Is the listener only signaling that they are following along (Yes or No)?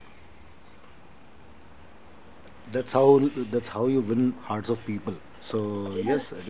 Yes